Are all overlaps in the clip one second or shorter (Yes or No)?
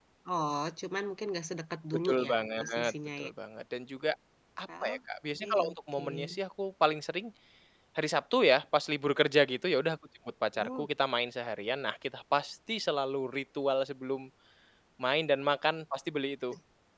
No